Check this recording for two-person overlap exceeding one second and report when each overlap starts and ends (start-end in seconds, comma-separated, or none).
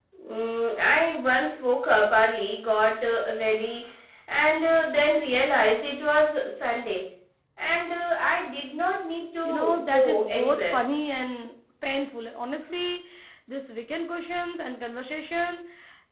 9.4-10.8